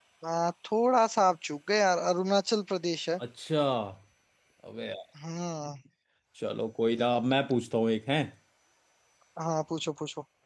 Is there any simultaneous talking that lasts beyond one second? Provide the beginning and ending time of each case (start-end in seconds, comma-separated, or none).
none